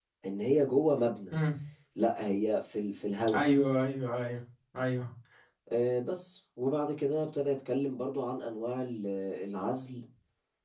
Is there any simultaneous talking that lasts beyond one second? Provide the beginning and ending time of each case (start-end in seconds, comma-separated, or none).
none